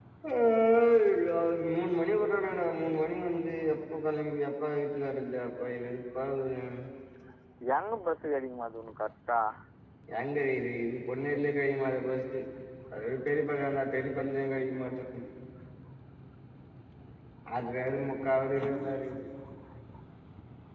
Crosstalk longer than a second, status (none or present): none